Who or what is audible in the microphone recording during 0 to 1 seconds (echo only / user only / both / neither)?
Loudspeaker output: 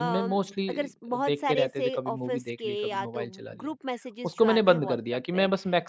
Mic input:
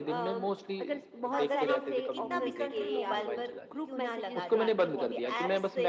echo only